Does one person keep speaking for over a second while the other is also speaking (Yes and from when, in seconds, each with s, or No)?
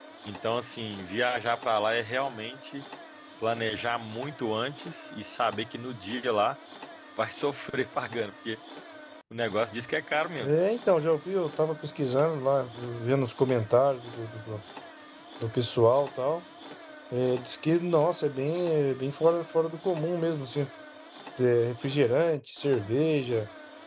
No